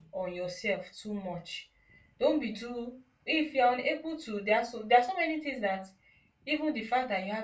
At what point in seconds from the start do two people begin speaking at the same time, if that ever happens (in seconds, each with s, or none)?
none